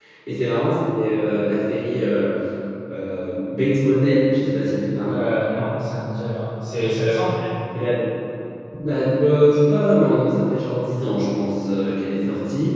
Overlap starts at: none

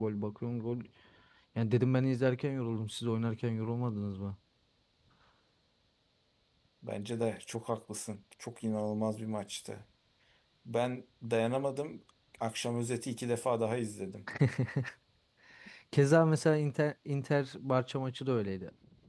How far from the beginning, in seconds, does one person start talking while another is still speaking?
none

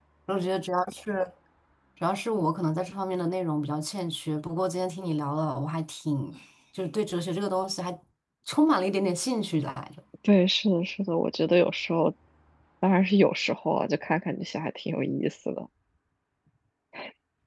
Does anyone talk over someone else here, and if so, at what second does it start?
none

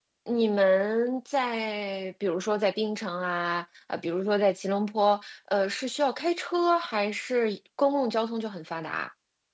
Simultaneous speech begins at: none

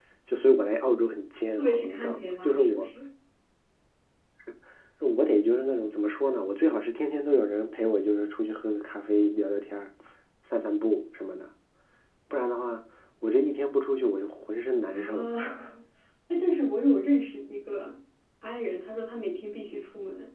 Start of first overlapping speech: 1.6 s

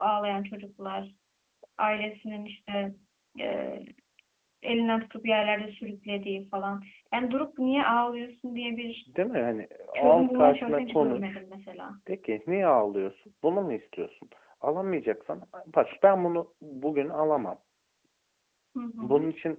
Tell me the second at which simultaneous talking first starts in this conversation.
9.9 s

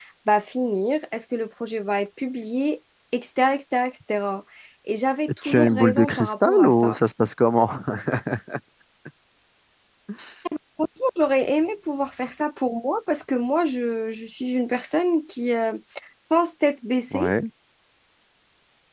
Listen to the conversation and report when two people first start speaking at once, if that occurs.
5.4 s

